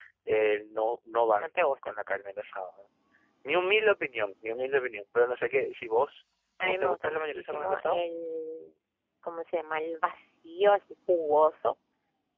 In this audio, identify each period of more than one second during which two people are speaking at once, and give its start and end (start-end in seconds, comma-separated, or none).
6.6-8.0